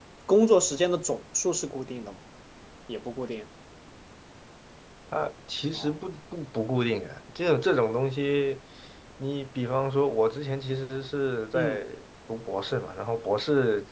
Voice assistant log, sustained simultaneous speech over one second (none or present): none